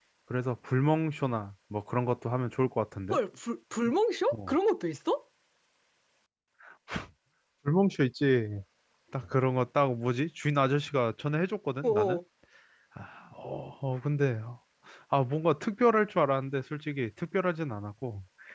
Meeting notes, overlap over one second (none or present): none